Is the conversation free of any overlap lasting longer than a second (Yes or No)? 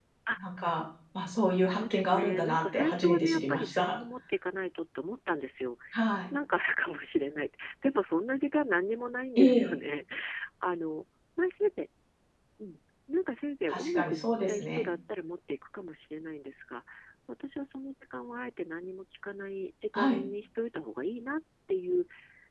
No